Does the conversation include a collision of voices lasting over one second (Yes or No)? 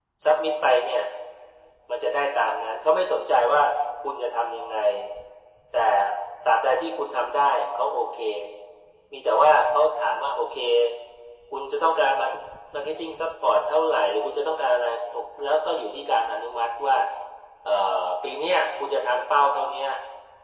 No